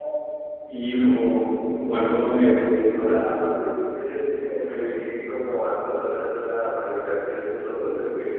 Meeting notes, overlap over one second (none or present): none